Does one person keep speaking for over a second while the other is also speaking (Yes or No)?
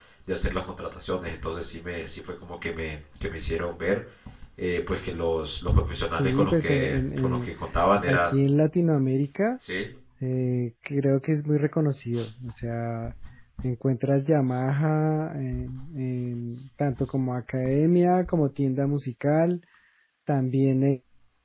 Yes